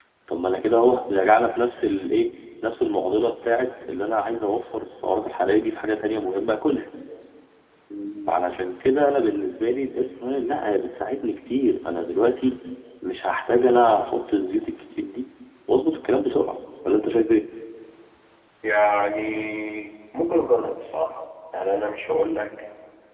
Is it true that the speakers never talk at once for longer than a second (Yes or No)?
Yes